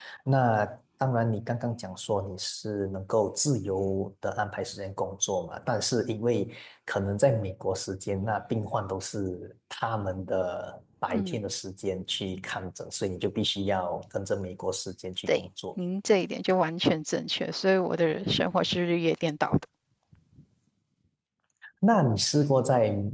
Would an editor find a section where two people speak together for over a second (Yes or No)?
No